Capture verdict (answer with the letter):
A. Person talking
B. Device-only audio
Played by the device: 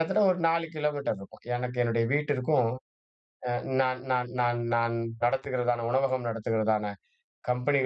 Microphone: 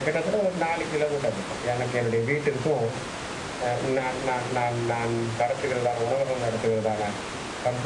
B